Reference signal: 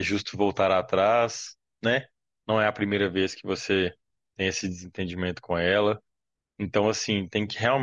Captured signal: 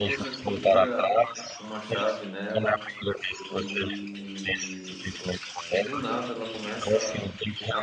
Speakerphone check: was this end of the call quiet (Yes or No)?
No